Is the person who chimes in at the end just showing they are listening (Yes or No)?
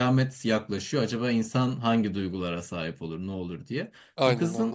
Yes